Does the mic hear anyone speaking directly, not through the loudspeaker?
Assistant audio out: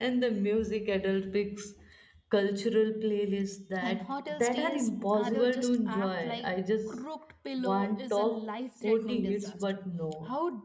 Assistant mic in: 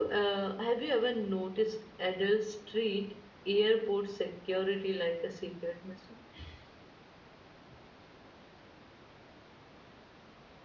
Yes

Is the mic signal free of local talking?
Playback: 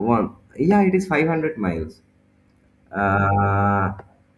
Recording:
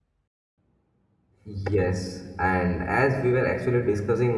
No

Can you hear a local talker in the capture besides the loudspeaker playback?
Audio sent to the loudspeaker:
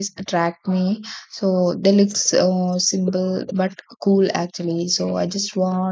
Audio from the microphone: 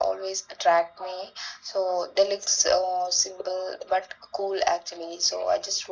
No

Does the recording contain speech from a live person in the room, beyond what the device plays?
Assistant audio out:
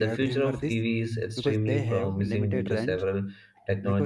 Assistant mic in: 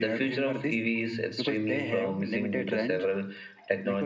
No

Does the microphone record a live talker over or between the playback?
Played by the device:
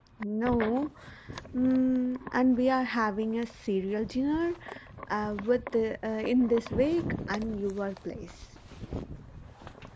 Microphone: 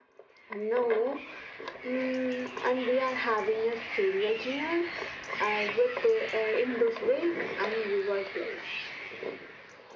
No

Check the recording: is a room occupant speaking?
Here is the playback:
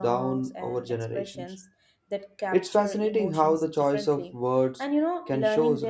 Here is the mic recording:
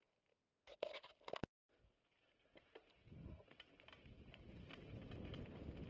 No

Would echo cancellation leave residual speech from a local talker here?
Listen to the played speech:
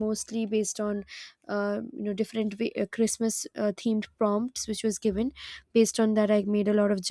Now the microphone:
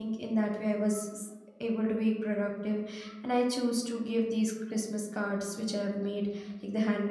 Yes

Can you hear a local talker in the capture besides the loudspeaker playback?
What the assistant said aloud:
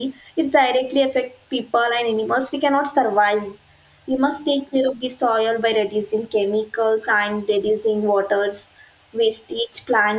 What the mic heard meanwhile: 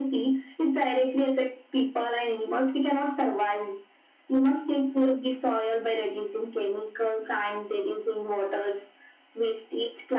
No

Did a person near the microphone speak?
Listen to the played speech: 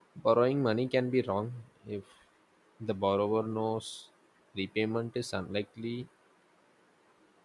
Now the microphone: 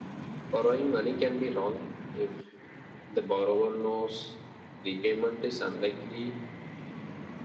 No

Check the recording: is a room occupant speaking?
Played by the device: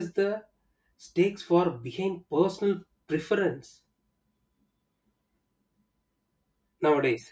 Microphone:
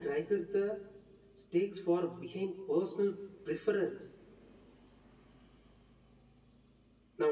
No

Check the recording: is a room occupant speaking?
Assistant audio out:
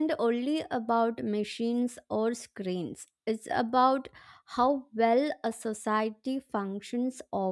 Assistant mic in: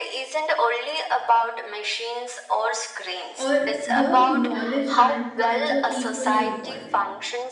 Yes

